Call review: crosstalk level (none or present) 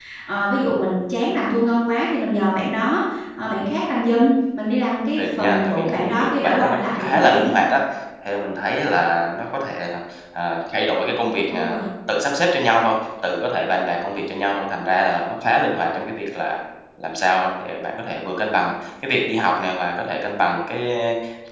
present